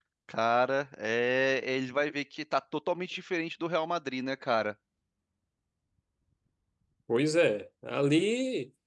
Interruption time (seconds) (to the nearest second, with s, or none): none